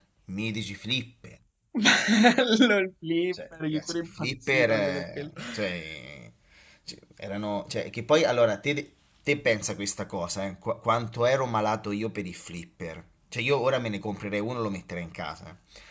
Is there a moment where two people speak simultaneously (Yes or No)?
Yes